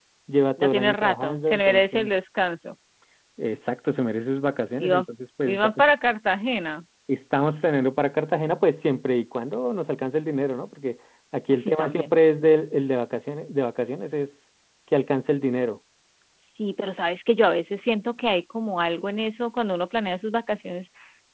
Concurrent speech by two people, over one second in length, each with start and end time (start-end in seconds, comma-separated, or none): 0.6-2.1